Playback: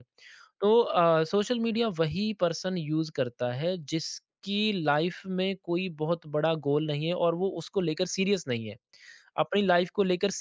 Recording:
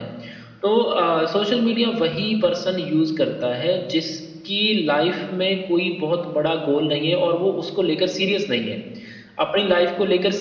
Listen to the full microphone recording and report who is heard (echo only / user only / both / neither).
echo only